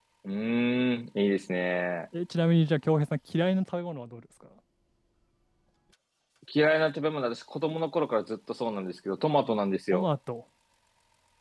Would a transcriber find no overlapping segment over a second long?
Yes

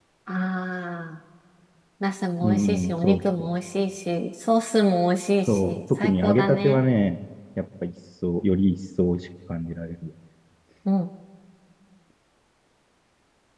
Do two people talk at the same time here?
Yes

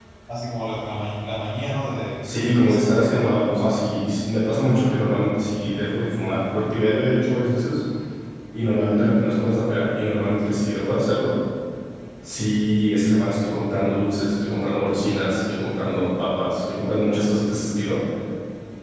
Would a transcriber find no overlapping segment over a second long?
No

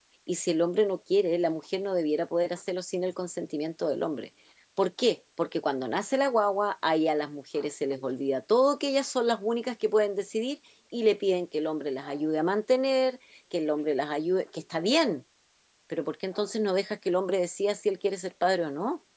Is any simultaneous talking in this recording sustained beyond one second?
No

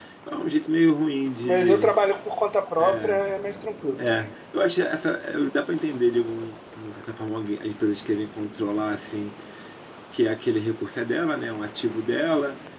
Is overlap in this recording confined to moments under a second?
Yes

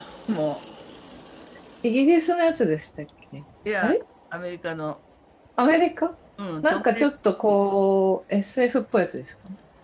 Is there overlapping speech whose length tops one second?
No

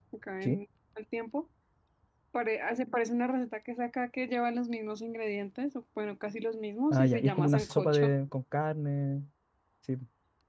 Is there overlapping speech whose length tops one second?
Yes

